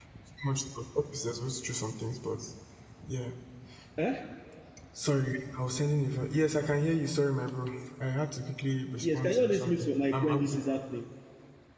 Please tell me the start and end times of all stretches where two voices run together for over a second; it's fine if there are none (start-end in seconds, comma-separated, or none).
9.0-10.5